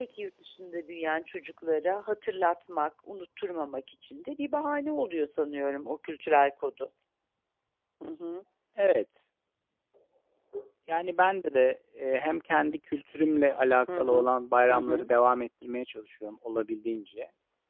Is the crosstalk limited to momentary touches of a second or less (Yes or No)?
Yes